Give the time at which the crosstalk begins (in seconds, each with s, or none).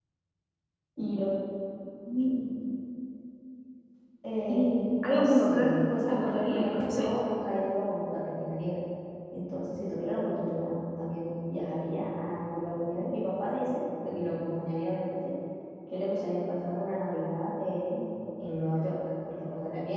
4.5 s